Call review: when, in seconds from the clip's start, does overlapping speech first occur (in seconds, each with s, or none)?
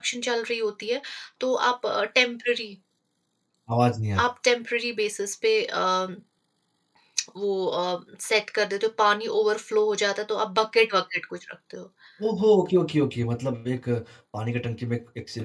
none